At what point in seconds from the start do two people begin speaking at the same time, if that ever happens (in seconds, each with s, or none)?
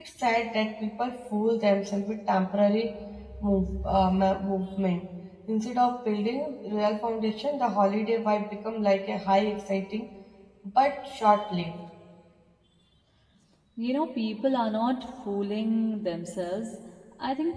none